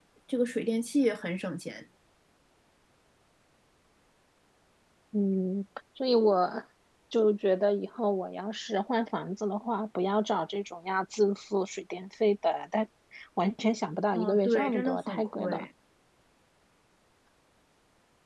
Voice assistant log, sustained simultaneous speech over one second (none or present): present